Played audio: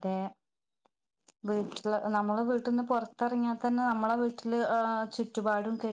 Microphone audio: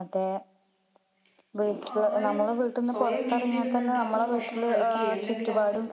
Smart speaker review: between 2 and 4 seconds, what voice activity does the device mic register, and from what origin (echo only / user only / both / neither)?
both